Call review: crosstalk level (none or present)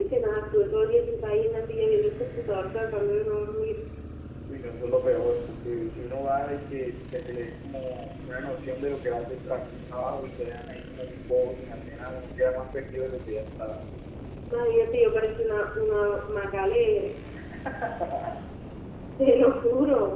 none